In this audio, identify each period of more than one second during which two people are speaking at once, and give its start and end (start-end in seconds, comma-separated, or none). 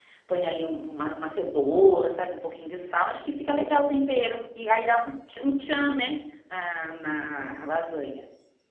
none